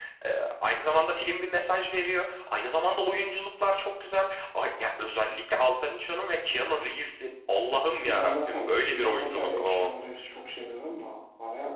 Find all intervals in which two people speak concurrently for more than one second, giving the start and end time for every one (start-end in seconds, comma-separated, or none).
8.0-10.0